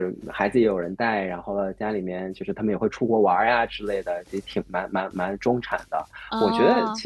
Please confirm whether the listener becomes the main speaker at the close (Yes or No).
No